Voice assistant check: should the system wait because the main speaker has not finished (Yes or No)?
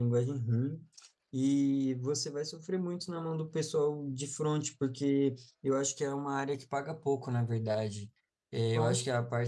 Yes